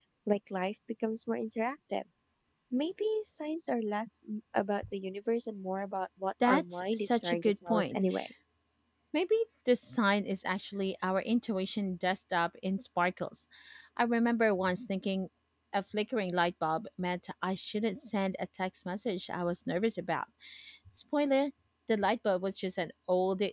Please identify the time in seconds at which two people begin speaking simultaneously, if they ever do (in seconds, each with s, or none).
6.4 s